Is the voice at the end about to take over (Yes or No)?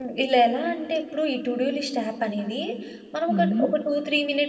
No